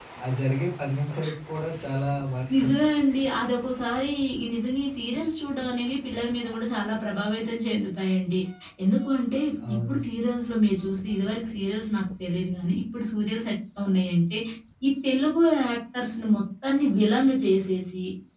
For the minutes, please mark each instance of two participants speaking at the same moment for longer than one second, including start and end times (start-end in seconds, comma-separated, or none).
none